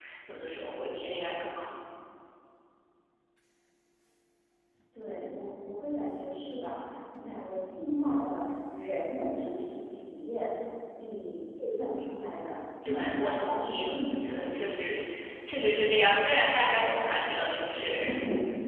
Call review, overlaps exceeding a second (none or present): present